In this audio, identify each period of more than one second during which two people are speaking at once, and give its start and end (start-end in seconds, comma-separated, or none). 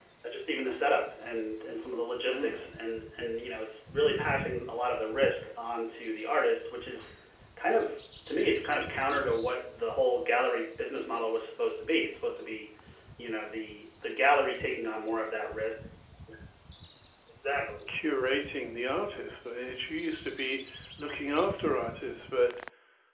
none